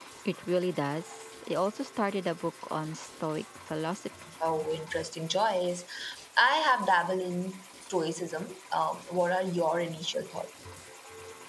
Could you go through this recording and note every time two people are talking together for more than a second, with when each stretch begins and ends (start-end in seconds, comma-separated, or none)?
none